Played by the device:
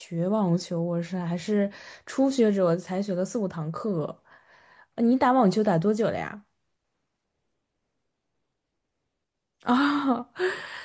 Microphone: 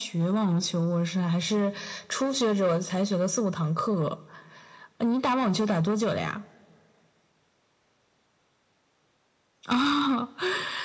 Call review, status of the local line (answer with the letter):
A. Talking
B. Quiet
B